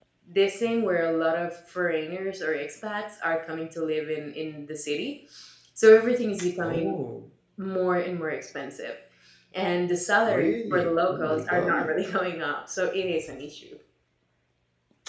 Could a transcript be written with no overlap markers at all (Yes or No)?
No